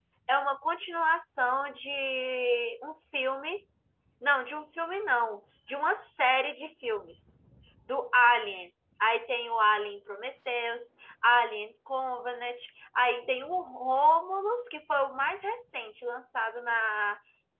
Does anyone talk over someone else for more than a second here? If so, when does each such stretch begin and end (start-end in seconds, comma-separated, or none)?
none